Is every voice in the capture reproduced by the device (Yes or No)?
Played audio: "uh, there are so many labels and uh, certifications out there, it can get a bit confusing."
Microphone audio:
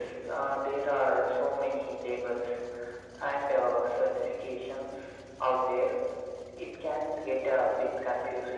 Yes